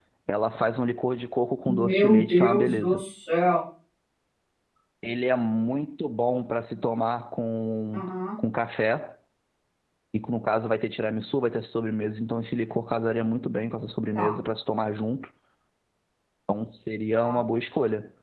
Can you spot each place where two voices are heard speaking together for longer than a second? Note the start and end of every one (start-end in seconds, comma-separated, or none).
1.7-3.0